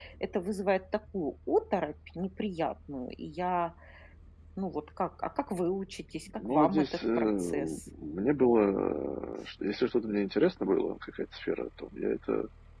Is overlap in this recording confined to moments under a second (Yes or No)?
No